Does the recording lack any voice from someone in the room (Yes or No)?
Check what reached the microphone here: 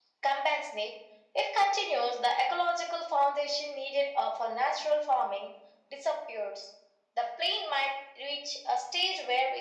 Yes